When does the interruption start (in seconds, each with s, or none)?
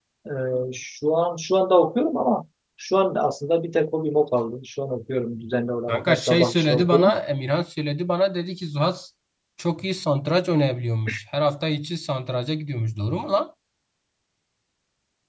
5.9 s